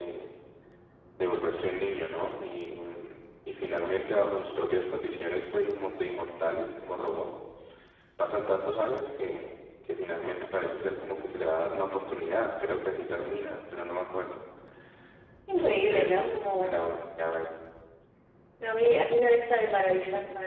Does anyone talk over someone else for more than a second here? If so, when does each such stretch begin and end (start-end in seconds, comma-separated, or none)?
15.5-16.8